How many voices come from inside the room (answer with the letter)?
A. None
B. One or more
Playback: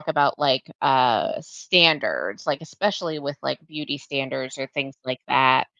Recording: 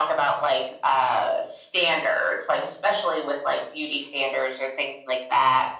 A